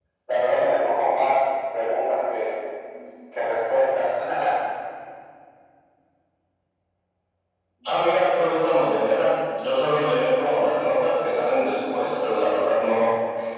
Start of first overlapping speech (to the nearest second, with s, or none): none